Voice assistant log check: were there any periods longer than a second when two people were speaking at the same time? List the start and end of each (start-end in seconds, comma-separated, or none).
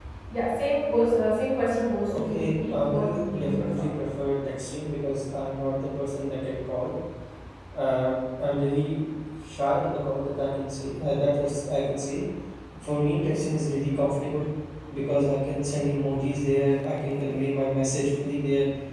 2.1-3.9